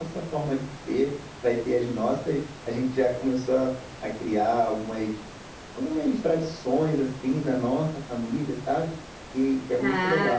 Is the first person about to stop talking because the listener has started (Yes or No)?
Yes